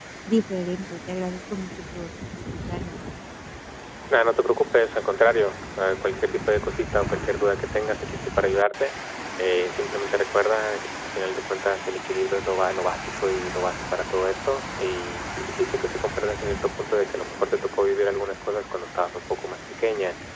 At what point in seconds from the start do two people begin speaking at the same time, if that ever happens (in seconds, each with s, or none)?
none